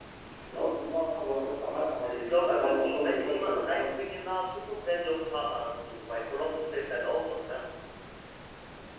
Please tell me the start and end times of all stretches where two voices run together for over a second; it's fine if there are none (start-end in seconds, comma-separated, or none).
2.0-3.9